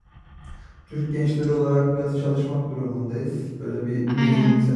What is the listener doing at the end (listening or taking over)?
taking over